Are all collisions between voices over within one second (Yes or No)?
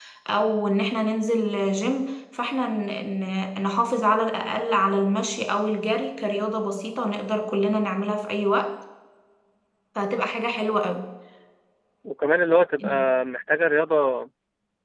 Yes